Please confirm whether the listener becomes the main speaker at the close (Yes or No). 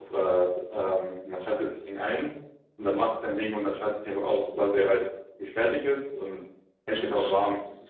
Yes